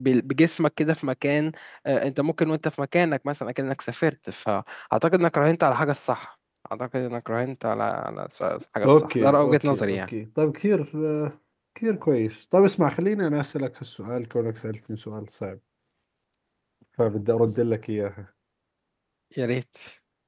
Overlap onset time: 8.8 s

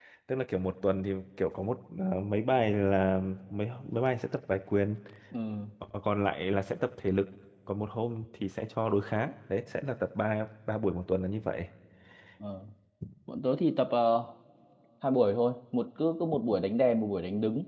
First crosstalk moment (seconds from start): none

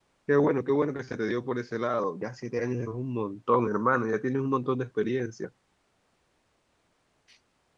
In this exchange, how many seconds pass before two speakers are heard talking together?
none

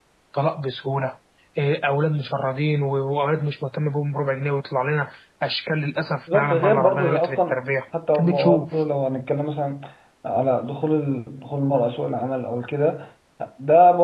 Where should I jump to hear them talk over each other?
6.3 s

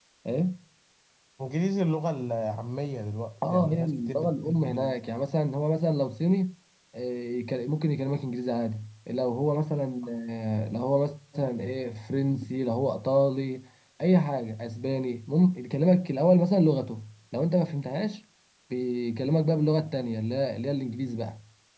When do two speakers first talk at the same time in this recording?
3.4 s

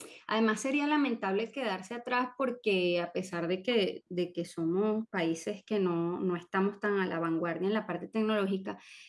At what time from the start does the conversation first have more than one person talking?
none

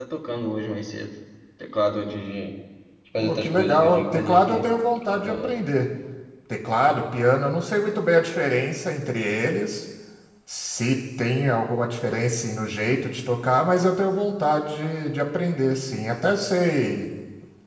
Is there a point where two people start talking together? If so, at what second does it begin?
3.2 s

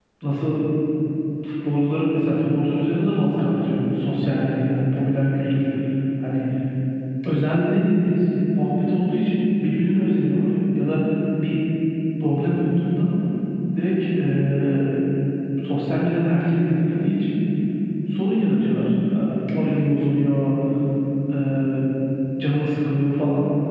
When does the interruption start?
none

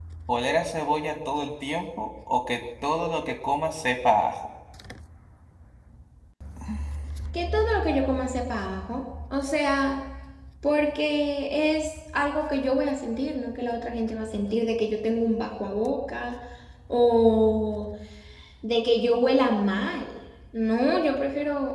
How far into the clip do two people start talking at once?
none

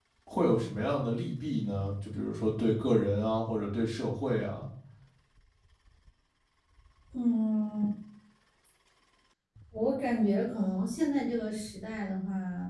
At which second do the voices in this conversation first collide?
none

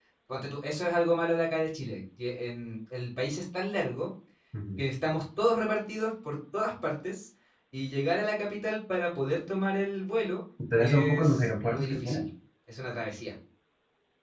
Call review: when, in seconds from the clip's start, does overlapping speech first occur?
10.7 s

